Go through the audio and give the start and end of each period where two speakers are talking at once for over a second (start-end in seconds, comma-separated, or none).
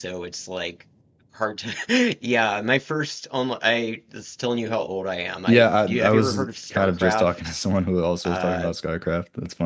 5.5-7.3